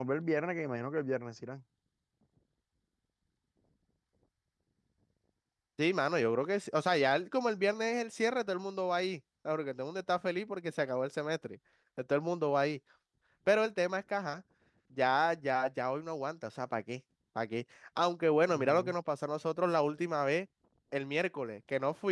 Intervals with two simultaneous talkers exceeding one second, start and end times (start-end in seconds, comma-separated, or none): none